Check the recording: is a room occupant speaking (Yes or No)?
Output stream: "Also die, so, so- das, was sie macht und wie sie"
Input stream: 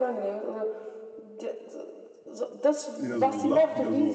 Yes